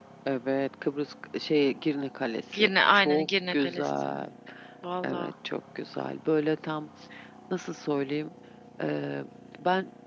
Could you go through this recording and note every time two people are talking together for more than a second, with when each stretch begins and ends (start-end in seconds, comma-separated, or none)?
2.5-4.2